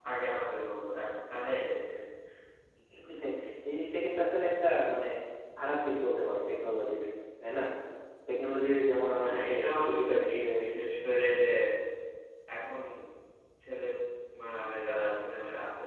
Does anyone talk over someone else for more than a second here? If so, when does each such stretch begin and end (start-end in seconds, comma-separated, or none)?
9.2-10.4